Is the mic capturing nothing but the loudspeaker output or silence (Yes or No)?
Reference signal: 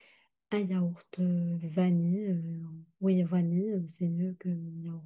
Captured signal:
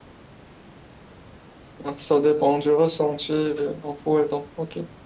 No